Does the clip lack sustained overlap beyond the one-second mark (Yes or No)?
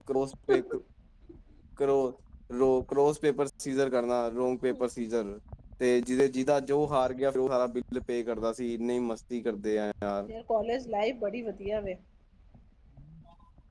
Yes